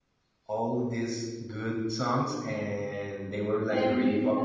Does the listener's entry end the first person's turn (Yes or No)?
No